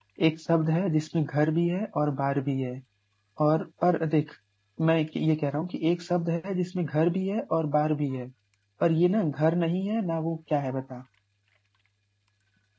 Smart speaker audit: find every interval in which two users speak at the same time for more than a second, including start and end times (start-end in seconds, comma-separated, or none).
none